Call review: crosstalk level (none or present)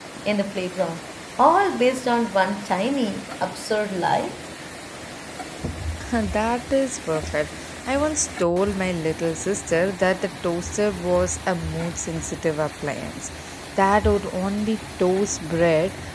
none